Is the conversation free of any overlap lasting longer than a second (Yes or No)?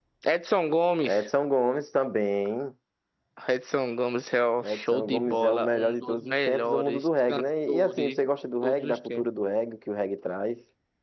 No